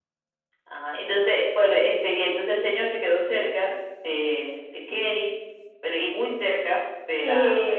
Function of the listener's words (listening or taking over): taking over